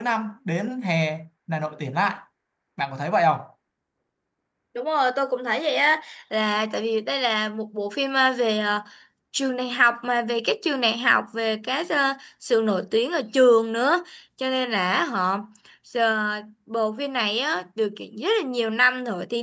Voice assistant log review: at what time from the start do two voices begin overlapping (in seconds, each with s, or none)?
none